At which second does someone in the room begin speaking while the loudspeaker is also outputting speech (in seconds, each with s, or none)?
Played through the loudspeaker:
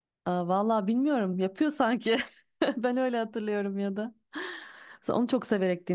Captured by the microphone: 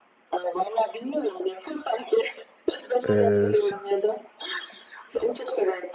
3.1 s